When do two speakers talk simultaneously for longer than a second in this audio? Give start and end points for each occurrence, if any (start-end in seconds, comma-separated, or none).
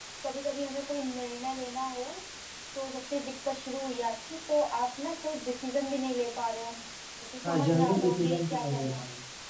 7.4-9.0